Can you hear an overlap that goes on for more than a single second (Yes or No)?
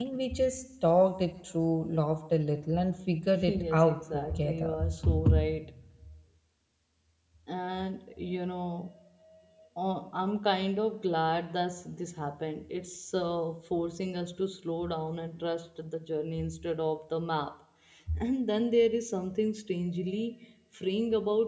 Yes